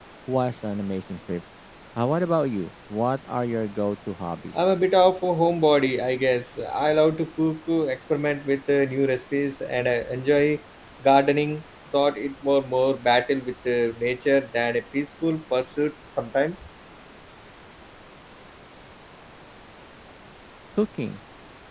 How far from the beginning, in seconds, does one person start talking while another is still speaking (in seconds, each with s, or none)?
none